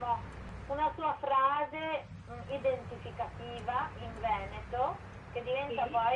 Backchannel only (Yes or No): Yes